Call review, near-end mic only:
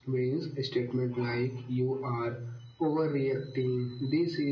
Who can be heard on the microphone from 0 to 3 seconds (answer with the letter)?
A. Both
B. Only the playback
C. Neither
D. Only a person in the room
B